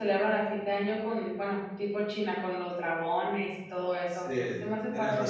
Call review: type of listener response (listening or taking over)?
taking over